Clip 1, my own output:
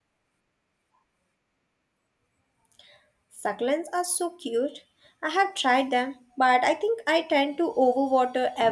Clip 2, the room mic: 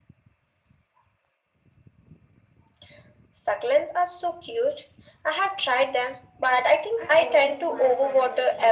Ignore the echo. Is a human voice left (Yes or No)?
Yes